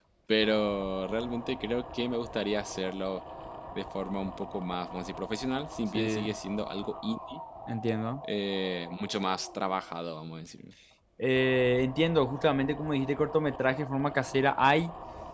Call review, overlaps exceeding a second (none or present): none